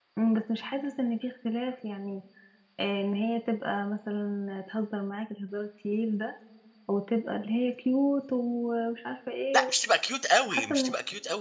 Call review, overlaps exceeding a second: none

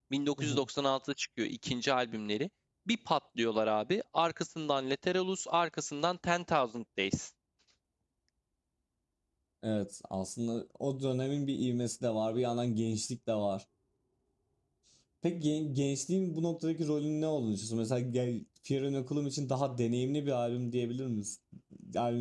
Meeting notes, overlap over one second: none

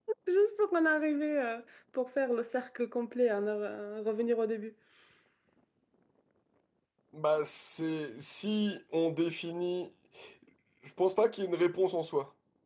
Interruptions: none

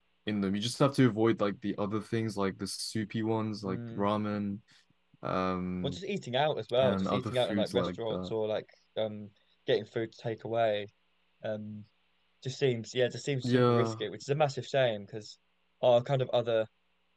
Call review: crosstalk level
present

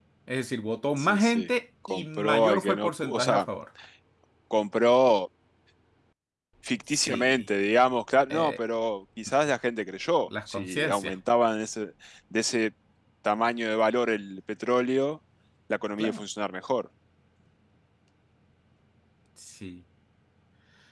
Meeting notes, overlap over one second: present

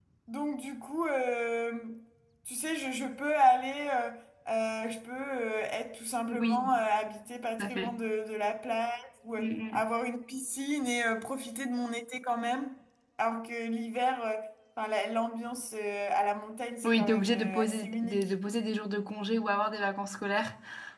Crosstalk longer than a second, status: present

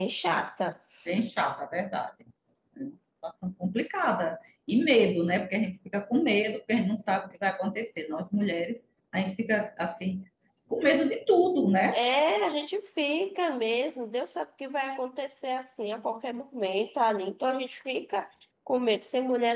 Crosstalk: none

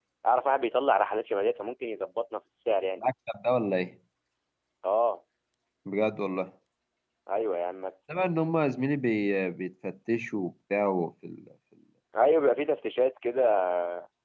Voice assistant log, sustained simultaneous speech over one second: none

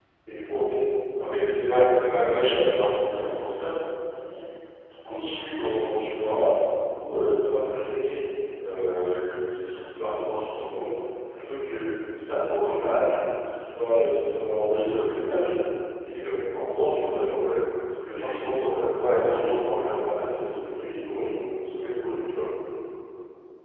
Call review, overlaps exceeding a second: present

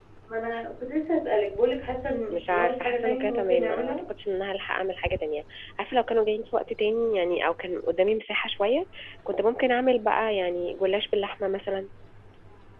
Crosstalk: present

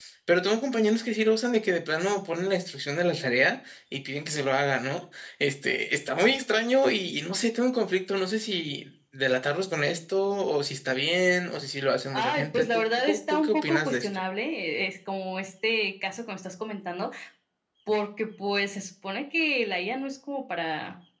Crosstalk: present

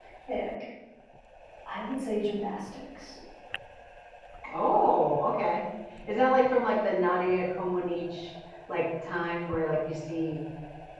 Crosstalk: none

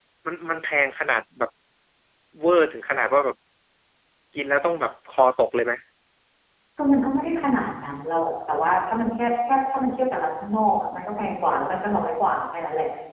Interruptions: none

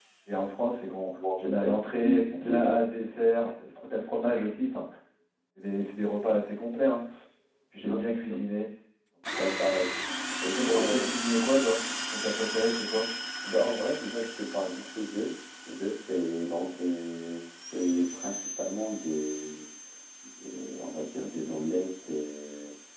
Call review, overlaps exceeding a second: present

